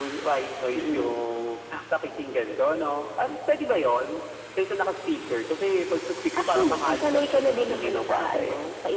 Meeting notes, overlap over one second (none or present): present